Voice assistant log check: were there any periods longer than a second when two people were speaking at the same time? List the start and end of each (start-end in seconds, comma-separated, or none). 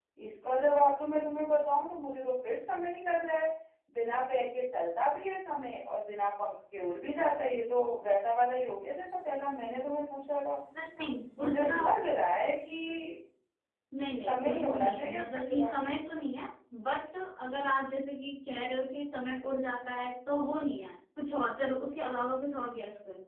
14.2-15.7